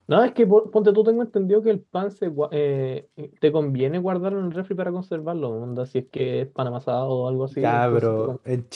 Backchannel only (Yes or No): No